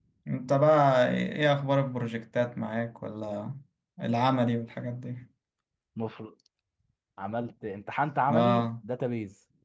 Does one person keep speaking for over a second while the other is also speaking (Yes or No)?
No